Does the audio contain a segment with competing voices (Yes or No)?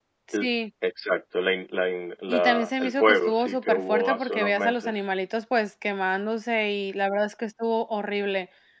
Yes